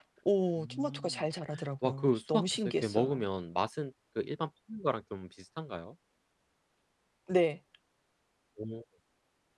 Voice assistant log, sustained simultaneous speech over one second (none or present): present